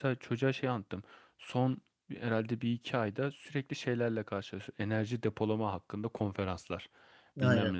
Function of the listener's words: listening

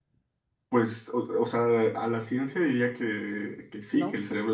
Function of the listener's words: listening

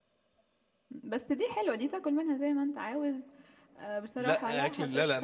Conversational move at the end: taking over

